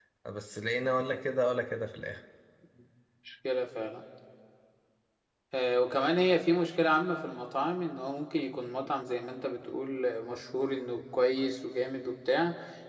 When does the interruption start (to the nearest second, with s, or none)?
none